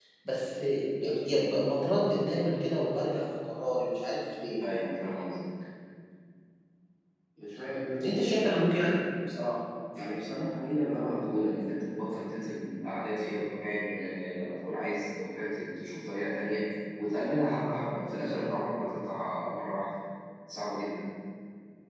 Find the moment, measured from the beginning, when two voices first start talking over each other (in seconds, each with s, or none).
none